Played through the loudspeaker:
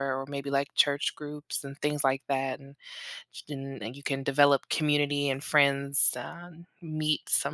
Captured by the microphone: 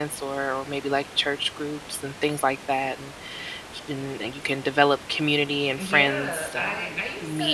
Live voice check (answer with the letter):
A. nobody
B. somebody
B